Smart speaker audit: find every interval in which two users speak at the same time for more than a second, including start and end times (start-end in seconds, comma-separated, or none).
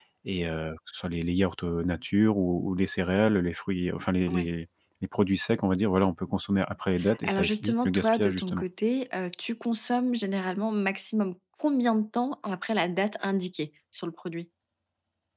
7.2-8.6